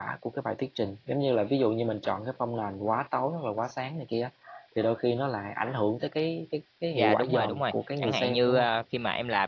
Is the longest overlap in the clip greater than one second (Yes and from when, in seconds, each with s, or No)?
Yes, from 7.0 s